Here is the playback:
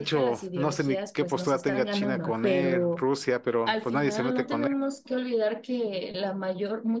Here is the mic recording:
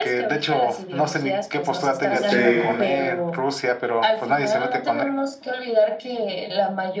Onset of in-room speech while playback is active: 2.1 s

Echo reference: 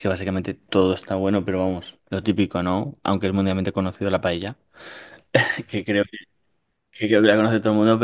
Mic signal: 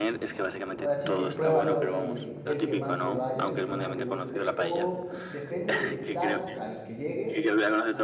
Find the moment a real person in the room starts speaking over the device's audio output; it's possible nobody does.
0.8 s

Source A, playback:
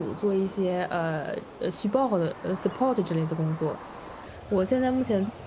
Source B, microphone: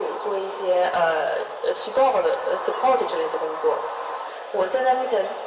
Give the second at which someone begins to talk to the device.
none

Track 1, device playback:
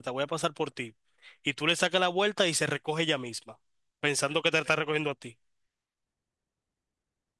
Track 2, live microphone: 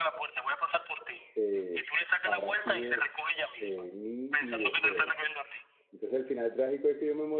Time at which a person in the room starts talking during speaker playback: 1.3 s

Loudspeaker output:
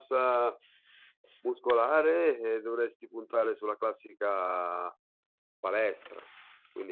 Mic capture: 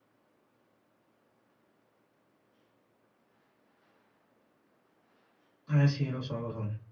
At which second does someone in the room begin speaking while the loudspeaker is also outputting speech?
5.7 s

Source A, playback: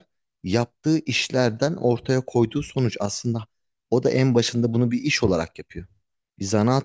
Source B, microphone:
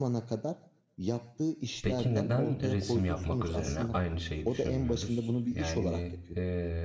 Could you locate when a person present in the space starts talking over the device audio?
1.8 s

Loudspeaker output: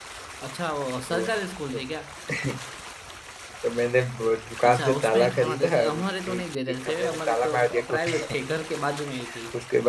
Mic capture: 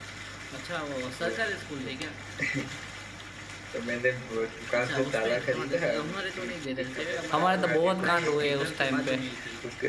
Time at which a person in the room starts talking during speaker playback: 7.3 s

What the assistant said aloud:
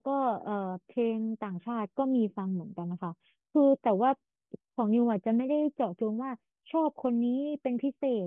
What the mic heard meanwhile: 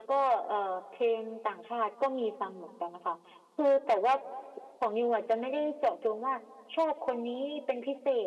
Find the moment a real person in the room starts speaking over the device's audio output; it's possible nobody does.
none

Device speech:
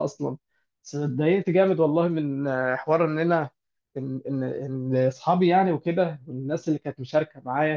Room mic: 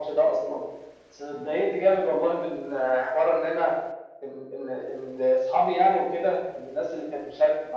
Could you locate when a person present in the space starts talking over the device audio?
none

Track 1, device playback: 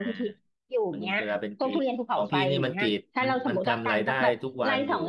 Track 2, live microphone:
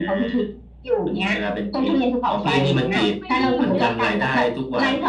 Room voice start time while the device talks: 2.4 s

